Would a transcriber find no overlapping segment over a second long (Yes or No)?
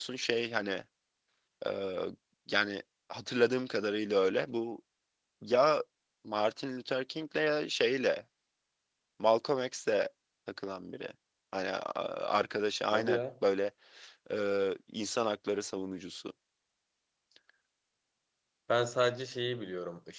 Yes